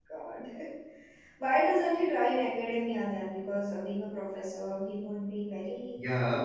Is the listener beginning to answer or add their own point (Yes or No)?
Yes